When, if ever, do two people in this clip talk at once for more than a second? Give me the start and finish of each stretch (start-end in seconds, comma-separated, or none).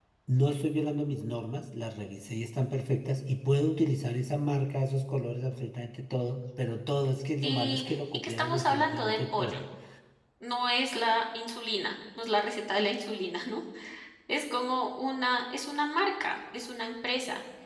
7.4-9.6